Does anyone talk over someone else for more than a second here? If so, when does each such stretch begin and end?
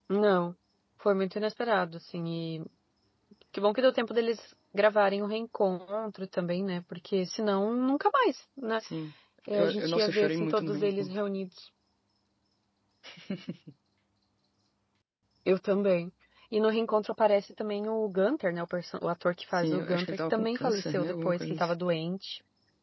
9.5-11.2, 19.5-21.7

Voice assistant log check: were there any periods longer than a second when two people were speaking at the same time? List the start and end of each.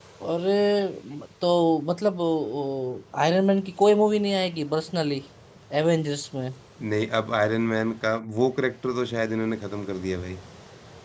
none

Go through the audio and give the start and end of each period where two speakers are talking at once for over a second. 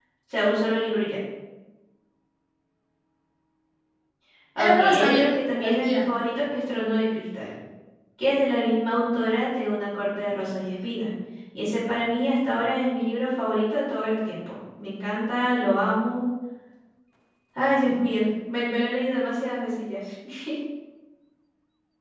4.6-6.1

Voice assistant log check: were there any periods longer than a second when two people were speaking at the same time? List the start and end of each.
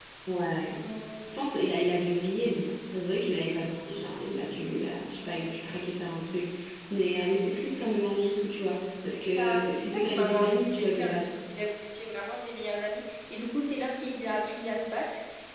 9.3-11.3

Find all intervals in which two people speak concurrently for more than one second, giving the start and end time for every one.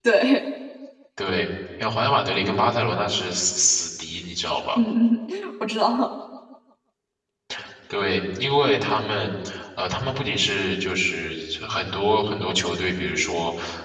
none

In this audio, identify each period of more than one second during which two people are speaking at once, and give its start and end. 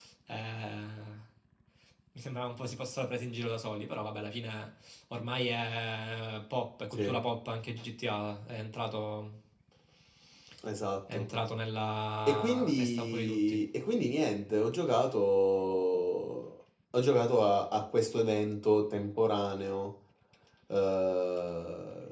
12.3-13.6

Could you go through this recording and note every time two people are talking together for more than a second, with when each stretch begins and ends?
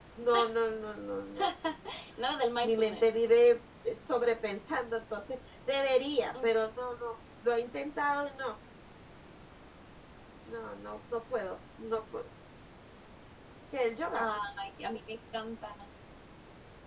none

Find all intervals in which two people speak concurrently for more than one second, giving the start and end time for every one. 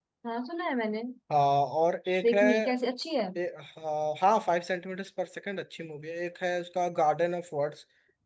none

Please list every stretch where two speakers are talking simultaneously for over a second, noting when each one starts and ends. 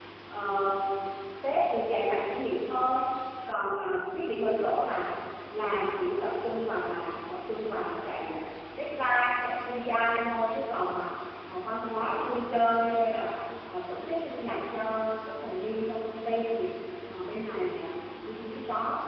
none

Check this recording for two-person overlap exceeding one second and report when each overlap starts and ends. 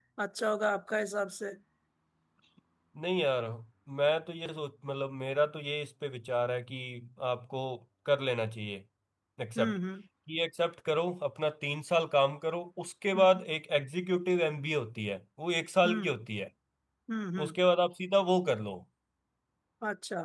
none

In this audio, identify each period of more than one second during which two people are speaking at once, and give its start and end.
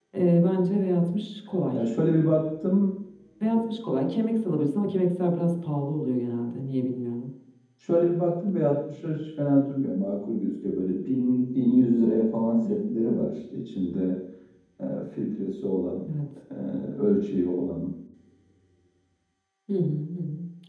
none

